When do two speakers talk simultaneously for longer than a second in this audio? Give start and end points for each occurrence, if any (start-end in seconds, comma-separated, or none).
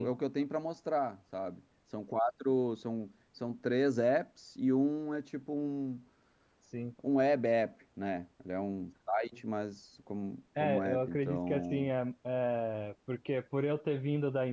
10.6-11.9